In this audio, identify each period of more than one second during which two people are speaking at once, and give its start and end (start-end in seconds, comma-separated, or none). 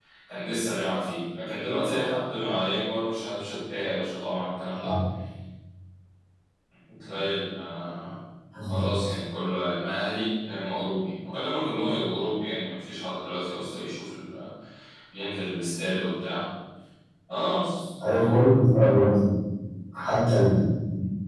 none